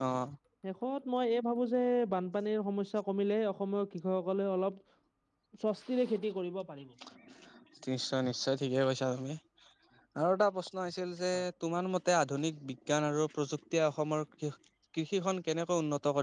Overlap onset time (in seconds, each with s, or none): none